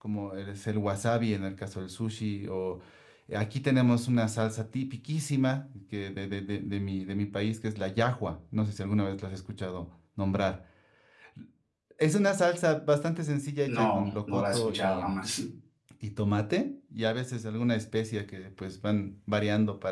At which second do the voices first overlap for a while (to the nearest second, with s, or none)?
14 s